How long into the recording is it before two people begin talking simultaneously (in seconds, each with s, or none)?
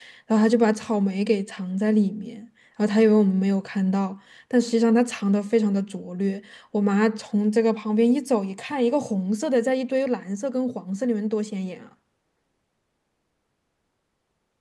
none